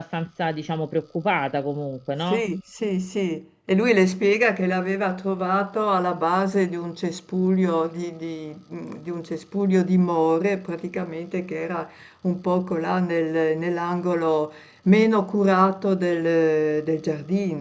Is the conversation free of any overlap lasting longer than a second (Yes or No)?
Yes